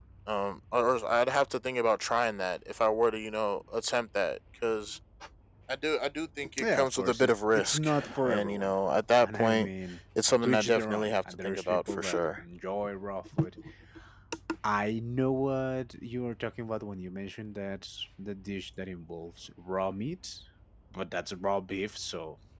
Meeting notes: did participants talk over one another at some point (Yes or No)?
Yes